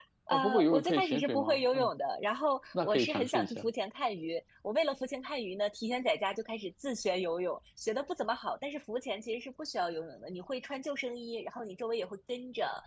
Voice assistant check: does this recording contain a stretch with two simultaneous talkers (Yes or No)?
Yes